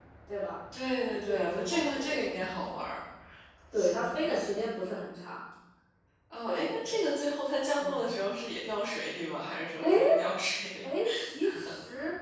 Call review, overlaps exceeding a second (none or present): present